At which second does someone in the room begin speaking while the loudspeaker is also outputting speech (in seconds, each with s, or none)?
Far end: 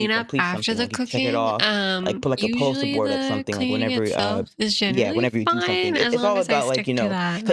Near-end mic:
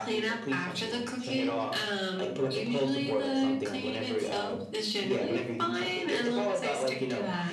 none